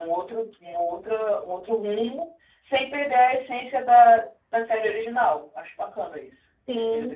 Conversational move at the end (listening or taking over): taking over